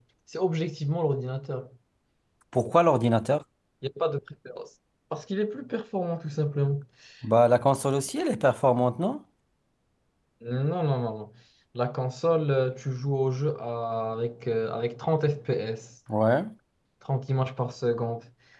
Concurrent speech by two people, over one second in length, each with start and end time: none

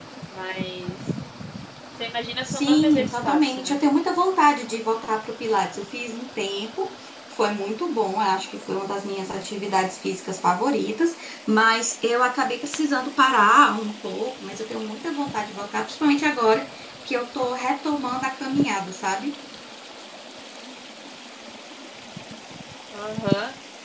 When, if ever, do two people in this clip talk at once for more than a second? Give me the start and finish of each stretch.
2.5-3.8

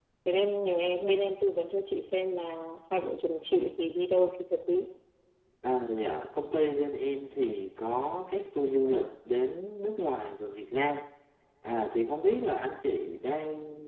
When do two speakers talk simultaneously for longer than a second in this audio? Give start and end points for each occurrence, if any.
none

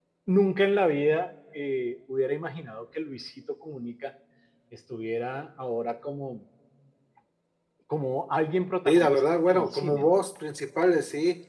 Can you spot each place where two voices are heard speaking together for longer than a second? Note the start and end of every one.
8.8-10.2

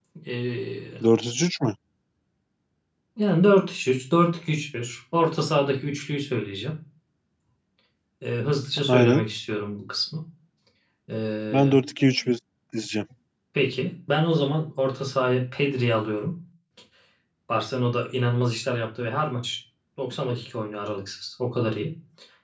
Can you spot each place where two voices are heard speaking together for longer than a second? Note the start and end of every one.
none

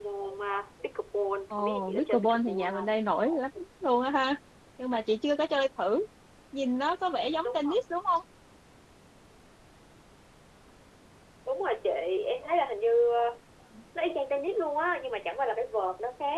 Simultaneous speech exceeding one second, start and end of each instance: 1.5-3.0

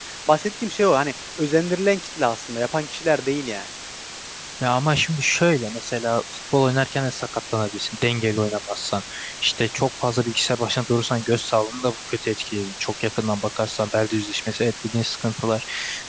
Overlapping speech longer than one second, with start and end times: none

